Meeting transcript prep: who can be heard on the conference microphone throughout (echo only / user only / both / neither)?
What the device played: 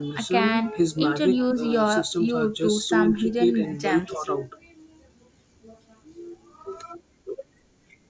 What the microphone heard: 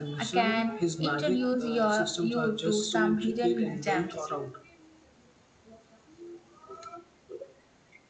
echo only